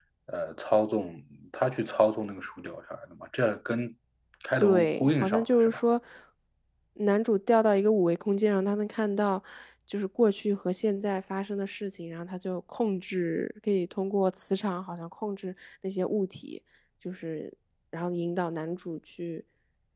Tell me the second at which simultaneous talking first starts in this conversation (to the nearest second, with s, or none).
5 s